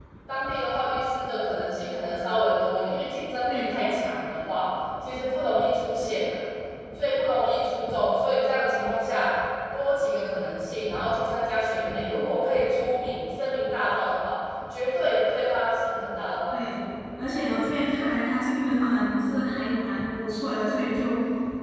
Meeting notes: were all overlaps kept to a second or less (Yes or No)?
Yes